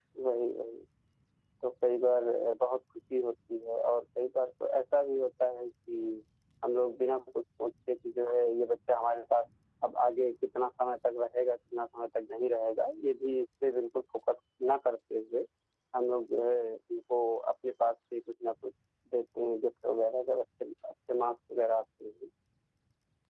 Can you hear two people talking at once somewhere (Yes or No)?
No